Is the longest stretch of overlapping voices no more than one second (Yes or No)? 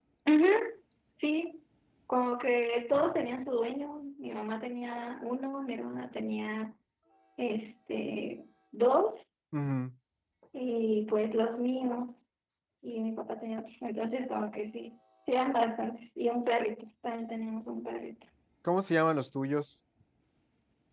Yes